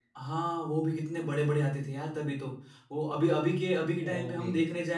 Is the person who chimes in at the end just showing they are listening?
Yes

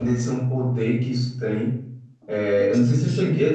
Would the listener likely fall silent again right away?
Yes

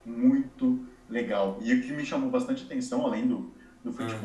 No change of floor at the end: Yes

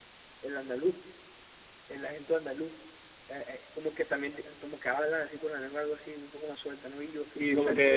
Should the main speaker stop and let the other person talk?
Yes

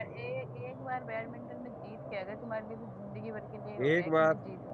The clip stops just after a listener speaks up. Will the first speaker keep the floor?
No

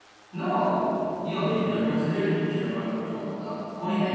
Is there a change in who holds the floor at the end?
No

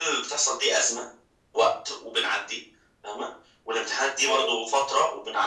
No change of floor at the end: Yes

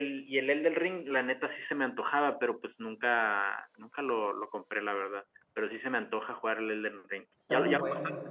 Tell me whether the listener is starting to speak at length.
Yes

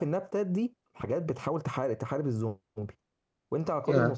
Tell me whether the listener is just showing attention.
Yes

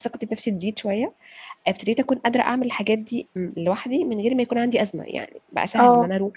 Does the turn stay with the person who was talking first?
Yes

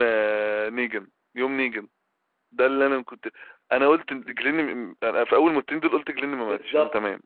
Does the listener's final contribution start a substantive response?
Yes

